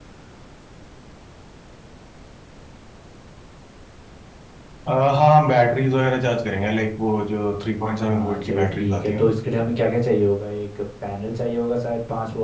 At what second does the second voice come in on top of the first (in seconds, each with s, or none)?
8.0 s